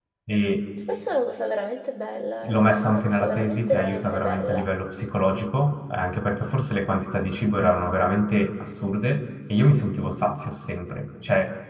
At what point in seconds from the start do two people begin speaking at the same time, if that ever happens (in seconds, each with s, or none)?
2.4 s